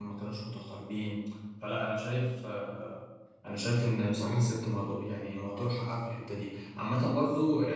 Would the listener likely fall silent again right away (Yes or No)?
Yes